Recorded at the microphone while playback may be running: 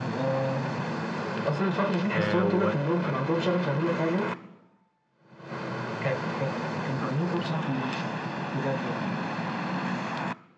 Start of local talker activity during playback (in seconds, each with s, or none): 2.1 s